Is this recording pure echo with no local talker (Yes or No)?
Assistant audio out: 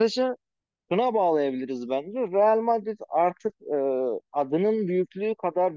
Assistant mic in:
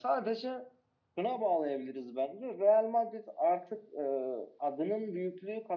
Yes